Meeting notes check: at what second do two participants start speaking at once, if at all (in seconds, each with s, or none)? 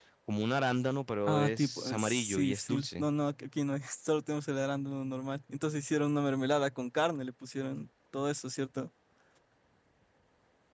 1.3 s